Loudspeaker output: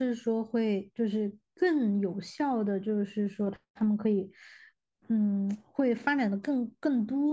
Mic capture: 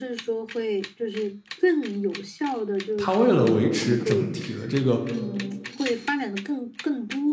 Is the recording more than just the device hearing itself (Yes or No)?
Yes